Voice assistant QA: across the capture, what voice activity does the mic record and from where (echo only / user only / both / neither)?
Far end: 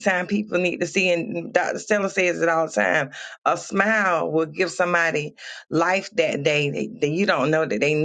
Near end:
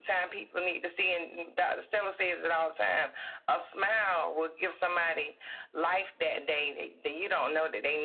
echo only